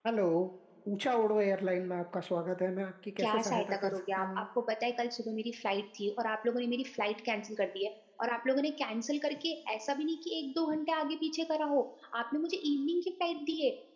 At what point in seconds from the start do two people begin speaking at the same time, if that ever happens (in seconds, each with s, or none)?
3.2 s